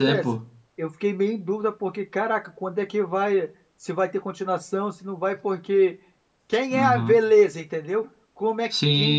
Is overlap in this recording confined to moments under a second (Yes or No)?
Yes